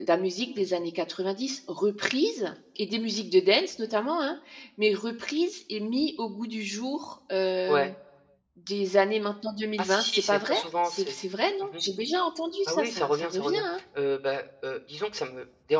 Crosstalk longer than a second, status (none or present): present